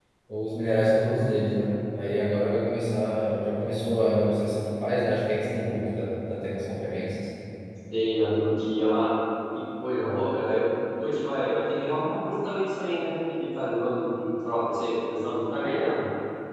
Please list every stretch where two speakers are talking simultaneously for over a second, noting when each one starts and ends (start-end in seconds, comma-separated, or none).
none